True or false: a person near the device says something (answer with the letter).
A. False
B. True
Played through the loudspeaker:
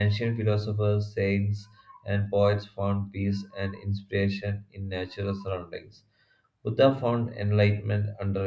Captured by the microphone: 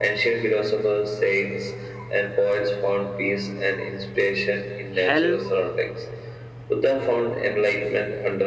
B